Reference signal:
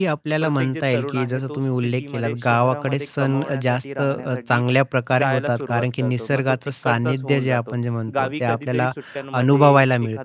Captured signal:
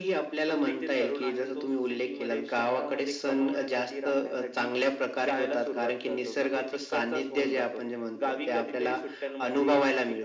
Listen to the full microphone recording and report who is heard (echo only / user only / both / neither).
echo only